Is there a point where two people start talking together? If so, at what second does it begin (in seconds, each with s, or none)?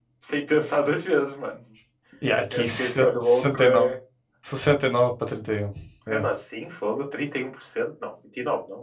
2.5 s